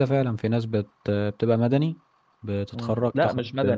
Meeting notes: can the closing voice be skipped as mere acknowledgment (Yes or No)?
No